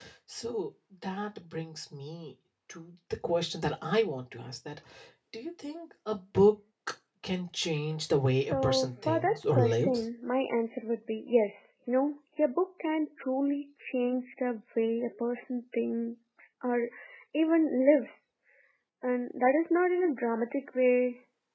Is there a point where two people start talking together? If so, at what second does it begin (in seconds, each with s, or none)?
8.5 s